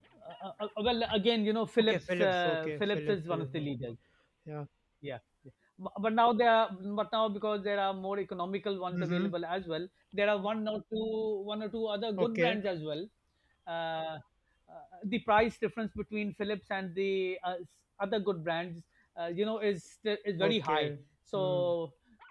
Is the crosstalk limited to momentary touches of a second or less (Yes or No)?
No